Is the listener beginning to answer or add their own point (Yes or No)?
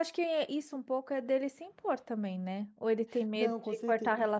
Yes